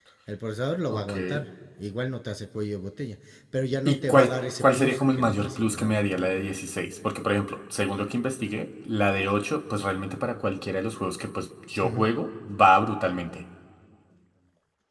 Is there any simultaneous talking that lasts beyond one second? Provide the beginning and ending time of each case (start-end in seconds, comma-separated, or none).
3.9-6.0